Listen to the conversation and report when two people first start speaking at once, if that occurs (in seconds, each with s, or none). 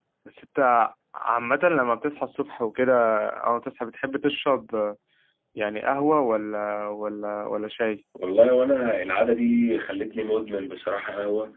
none